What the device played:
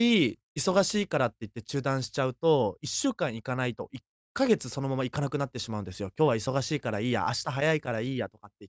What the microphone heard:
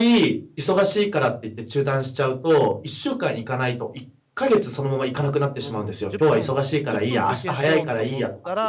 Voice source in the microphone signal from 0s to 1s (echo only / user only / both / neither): echo only